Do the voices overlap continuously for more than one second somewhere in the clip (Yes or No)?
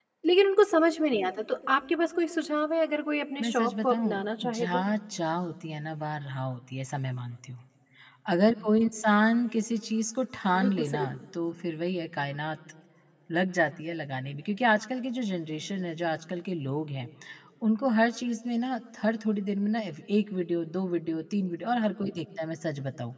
Yes